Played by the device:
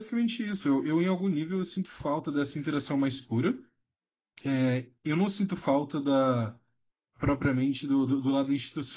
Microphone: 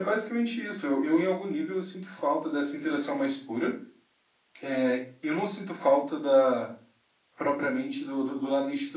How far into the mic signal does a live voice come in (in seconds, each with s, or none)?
none